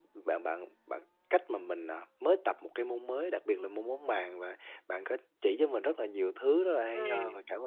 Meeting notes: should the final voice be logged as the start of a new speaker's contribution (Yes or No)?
No